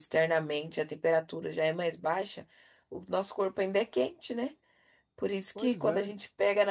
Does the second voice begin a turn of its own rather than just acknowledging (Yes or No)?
No